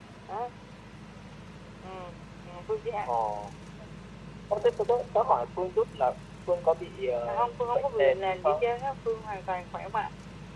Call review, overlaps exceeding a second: present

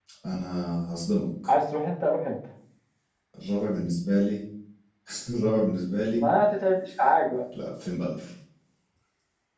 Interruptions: none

